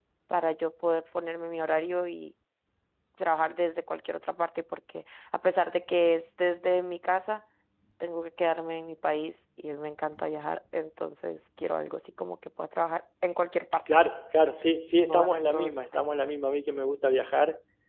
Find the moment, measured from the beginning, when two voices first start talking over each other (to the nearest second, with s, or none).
15 s